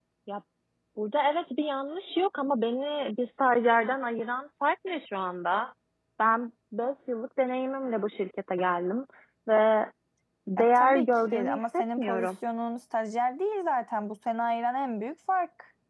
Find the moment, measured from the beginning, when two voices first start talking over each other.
11 s

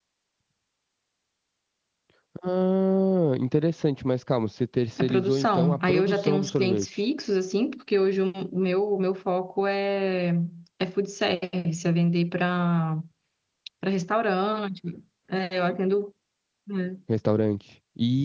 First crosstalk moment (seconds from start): 5 s

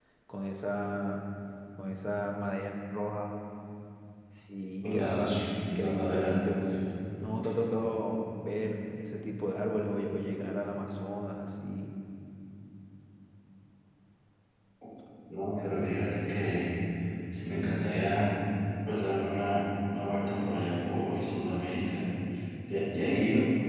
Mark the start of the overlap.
5 s

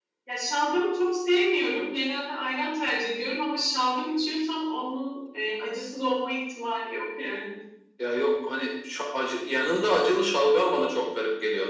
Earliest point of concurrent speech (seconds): none

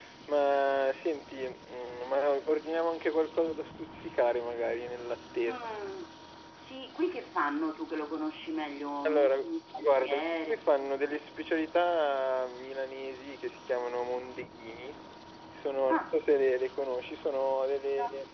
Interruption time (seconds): 9 s

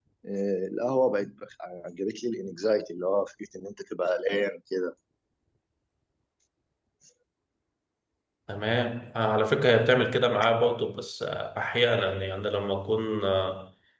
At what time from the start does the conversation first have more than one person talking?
none

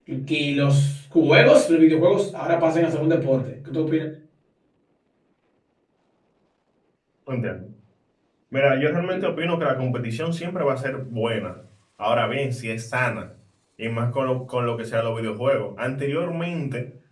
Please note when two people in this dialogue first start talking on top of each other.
none

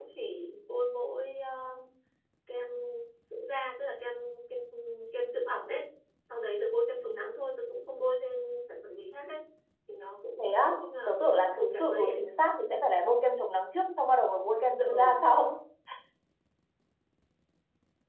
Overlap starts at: 10 s

